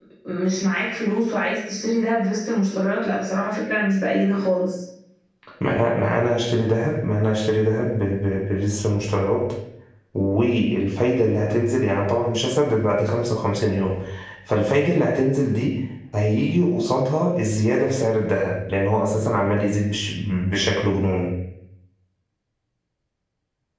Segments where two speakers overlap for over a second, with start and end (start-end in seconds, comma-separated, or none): none